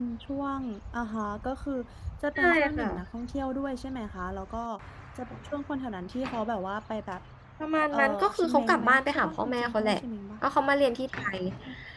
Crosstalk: present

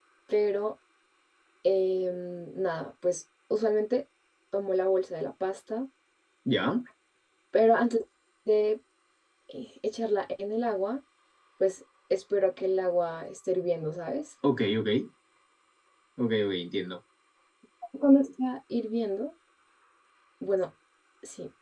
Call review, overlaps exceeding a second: none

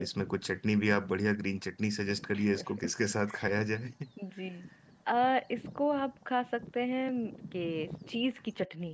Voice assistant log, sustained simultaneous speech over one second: none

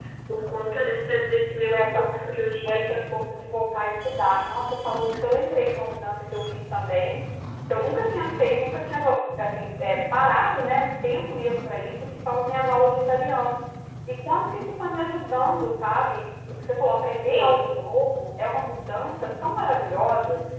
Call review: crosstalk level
present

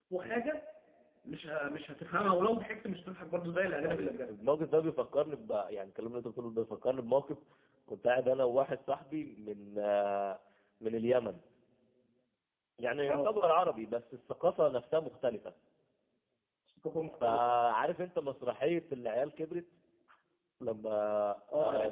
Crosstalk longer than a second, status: none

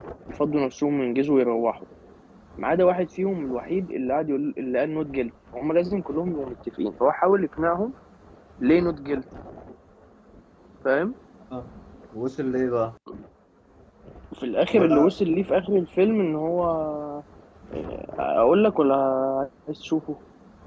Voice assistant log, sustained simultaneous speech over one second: none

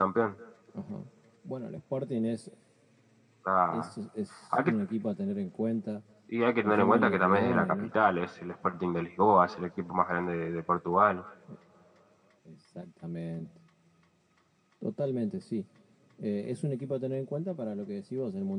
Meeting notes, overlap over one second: present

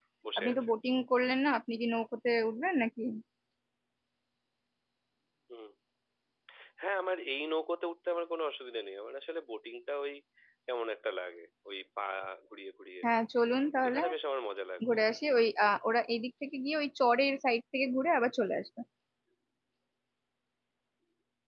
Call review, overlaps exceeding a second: none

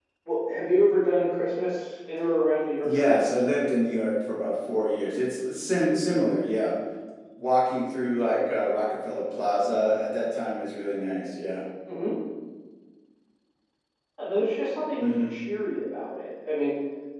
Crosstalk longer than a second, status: none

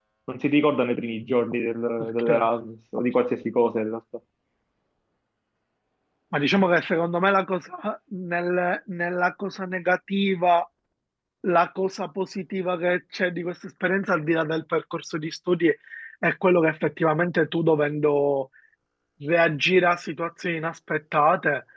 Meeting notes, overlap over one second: none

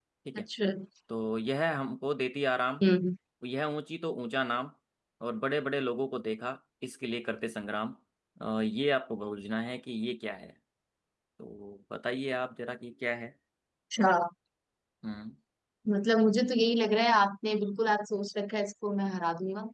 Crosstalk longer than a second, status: none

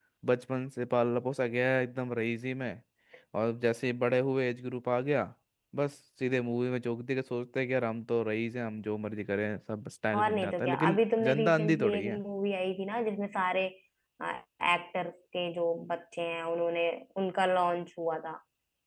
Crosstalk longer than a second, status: present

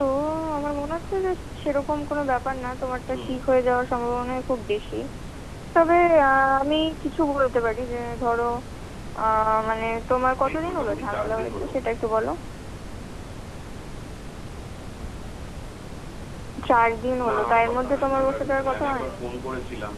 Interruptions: present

